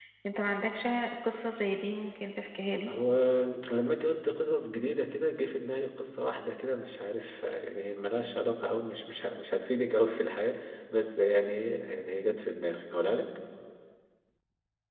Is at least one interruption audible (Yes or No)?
No